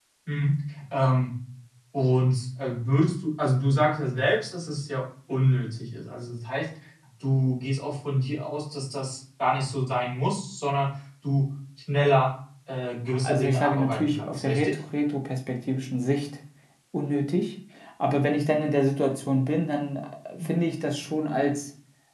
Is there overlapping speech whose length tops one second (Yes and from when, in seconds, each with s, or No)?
Yes, from 13.1 s